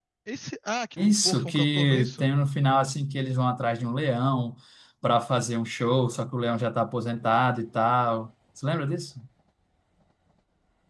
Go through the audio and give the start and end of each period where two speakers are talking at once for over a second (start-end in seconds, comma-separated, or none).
1.0-2.3